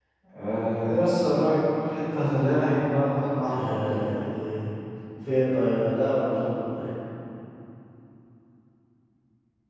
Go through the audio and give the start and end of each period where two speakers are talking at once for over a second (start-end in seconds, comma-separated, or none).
none